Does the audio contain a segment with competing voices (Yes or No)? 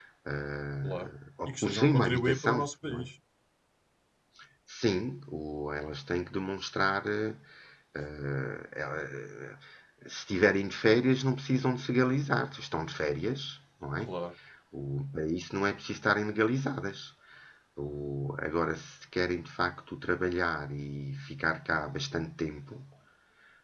Yes